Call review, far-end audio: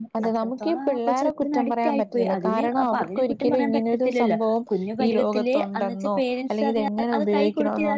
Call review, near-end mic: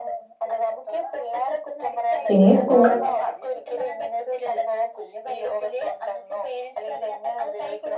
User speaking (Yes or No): Yes